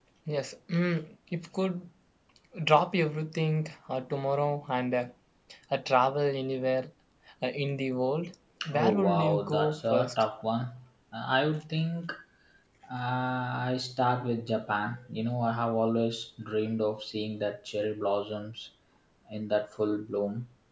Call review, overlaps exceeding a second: present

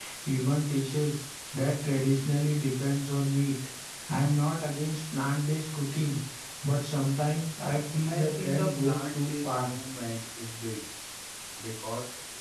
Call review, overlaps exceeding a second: present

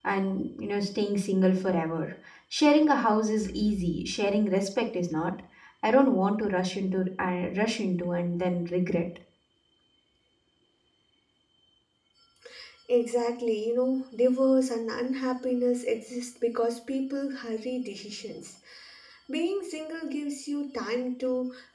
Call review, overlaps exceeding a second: none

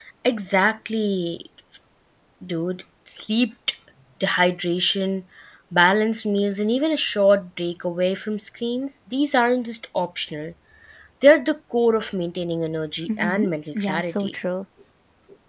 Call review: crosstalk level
present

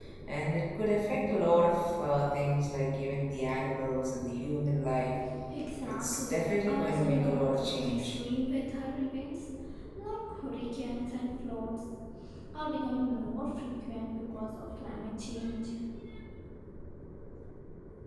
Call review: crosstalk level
present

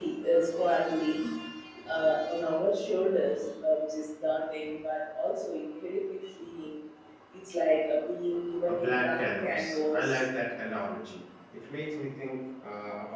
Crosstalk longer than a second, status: present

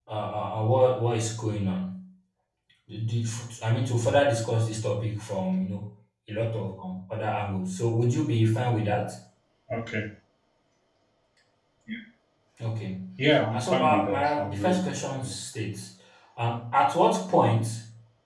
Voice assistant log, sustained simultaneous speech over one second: present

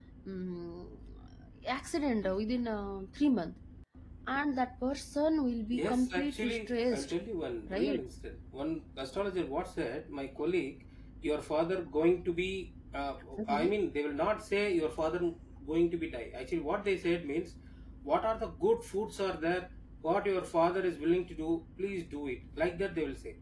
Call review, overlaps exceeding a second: present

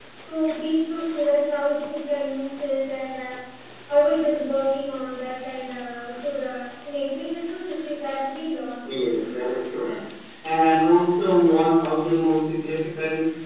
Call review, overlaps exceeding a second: none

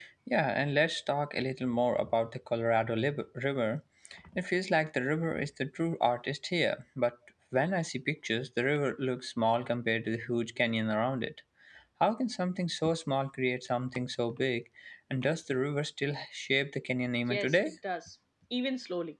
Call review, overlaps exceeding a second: none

